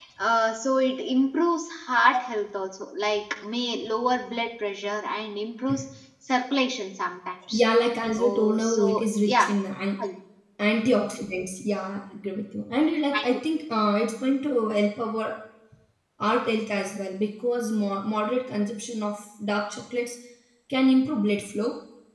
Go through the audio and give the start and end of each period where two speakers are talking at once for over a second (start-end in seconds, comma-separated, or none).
8.2-9.5